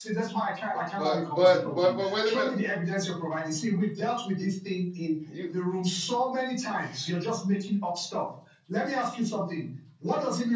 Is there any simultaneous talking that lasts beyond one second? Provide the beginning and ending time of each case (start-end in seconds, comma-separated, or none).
1.0-2.5